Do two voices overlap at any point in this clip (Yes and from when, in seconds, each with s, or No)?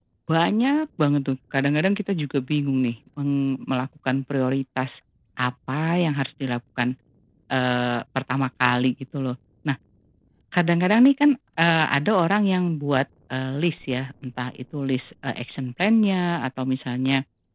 No